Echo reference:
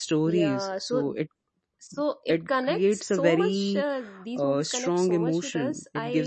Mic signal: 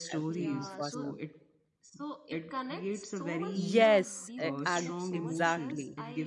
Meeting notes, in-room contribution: present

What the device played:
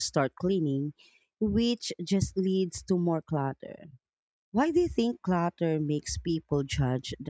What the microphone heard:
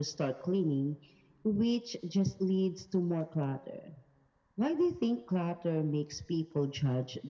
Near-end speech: none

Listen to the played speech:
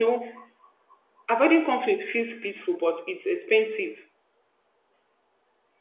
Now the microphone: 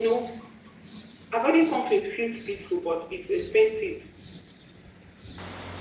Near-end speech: none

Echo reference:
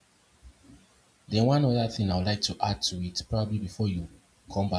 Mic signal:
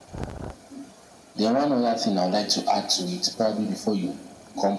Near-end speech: none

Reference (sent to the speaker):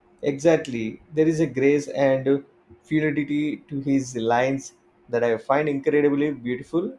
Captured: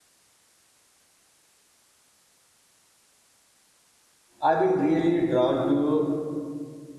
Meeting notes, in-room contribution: present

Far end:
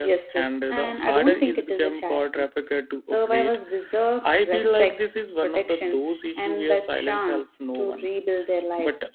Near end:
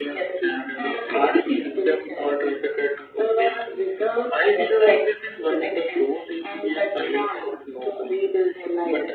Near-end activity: none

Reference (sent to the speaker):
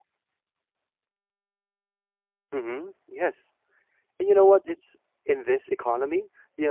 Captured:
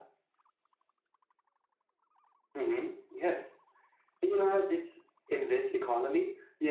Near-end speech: none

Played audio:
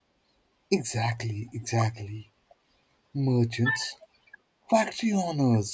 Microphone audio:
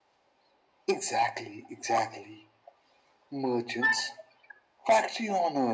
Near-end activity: none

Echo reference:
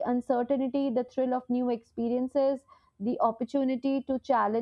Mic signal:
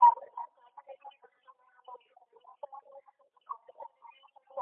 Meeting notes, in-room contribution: none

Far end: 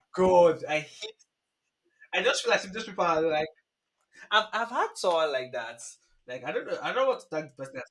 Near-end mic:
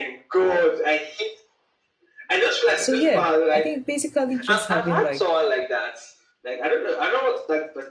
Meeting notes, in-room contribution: present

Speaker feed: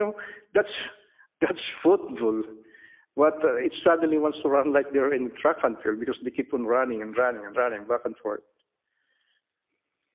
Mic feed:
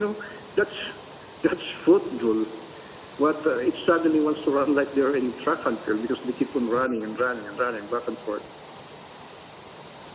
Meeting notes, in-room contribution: none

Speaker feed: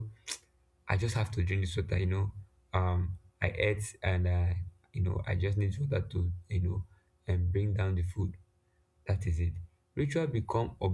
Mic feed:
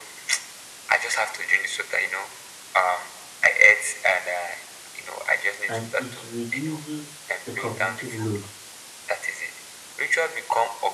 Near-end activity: present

